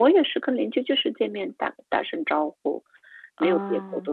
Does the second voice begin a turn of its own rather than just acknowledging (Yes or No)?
No